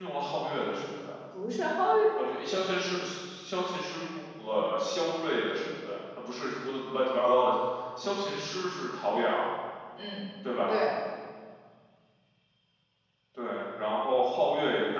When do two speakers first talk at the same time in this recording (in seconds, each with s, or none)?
none